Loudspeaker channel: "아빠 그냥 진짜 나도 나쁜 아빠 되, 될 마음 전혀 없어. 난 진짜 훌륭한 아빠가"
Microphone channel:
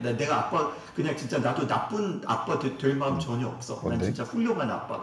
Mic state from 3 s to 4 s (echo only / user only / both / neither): both